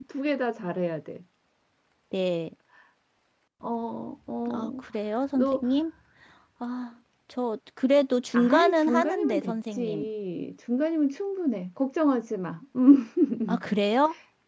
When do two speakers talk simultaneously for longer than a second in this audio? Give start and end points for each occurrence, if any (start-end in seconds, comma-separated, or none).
8.3-10.1